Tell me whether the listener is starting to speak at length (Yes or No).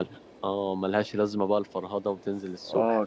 Yes